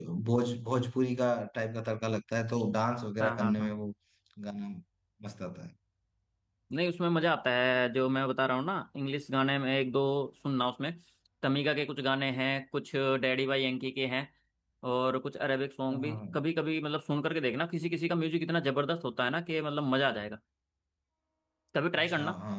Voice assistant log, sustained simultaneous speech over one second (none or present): none